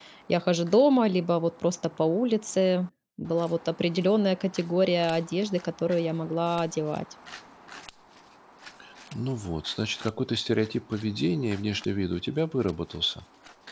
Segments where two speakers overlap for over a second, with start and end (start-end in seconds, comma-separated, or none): none